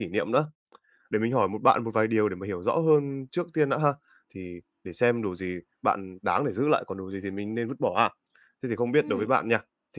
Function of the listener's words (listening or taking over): listening